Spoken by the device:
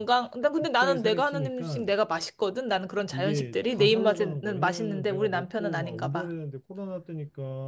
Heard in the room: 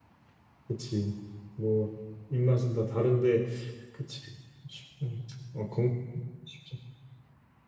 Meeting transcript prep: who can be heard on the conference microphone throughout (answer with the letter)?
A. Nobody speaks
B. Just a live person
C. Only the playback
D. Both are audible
B